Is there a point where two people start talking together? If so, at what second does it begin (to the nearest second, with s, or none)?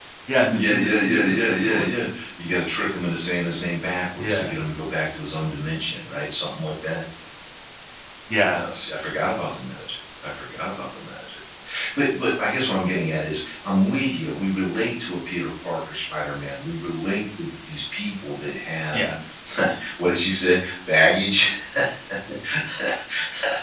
1 s